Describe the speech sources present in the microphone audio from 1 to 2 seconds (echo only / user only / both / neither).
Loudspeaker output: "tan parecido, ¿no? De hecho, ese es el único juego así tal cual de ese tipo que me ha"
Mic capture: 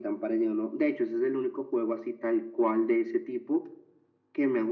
echo only